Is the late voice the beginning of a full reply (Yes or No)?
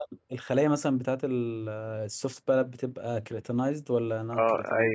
Yes